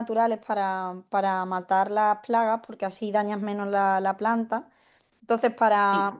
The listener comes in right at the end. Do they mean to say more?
No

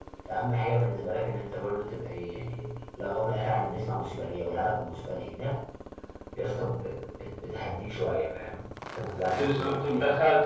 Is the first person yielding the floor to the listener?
Yes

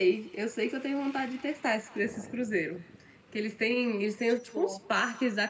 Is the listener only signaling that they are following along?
Yes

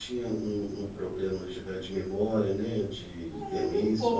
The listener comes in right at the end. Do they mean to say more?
Yes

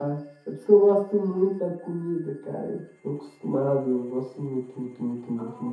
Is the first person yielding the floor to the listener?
Yes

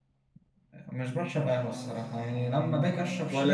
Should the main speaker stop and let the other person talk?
No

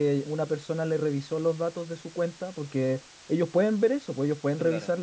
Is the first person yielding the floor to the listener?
No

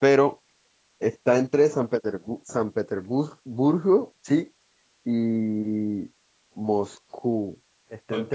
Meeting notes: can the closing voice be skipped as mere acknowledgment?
No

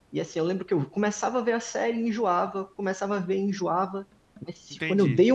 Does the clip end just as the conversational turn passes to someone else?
No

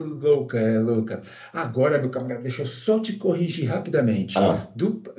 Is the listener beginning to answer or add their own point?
No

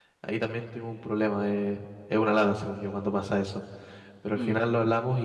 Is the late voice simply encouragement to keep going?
Yes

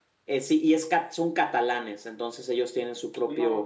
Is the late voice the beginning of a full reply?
No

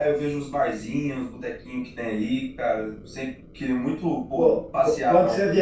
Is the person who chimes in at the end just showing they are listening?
No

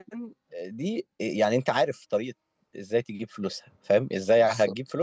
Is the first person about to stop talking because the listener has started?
No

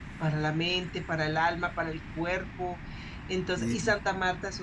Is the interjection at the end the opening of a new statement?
No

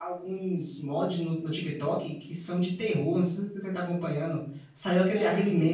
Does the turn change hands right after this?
No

